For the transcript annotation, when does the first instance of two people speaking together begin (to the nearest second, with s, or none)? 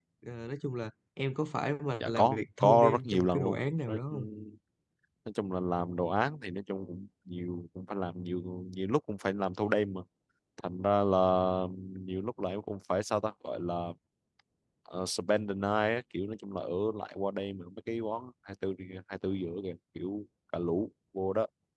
2 s